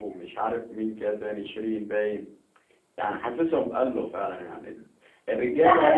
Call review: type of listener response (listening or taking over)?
taking over